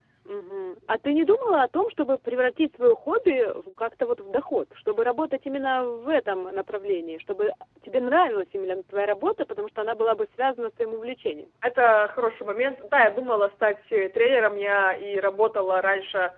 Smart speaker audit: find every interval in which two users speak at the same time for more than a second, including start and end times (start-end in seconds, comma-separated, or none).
none